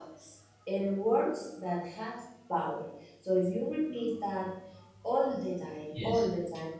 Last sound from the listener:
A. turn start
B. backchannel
B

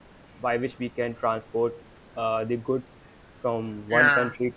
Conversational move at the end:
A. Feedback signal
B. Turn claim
A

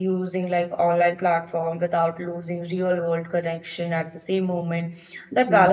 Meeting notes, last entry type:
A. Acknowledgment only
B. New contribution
A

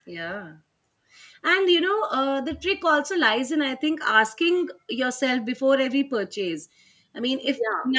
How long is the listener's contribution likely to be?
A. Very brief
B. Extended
A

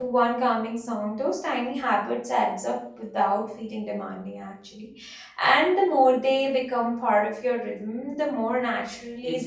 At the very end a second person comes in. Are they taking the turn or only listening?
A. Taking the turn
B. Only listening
A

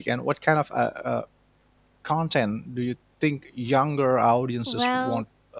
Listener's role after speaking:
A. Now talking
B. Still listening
A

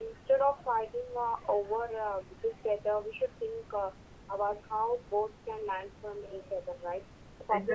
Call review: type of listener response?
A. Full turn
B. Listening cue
B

